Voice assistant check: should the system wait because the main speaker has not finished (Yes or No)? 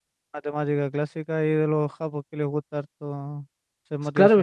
No